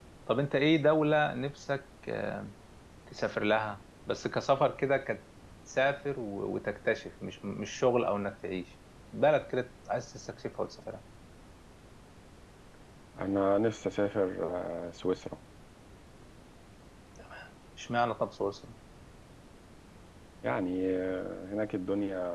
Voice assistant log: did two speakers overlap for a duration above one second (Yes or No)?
No